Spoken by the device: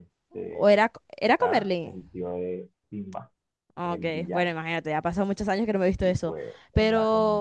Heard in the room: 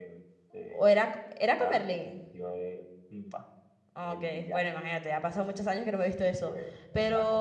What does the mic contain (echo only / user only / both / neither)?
echo only